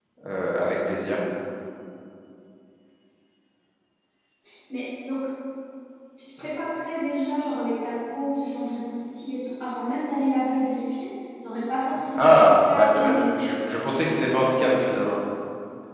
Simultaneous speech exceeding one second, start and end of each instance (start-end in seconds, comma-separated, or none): 12.2-13.4